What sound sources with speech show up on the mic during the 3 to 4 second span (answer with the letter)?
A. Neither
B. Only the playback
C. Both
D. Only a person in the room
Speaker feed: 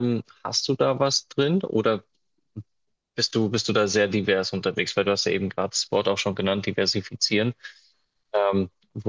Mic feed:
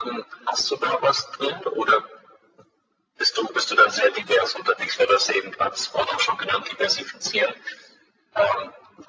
B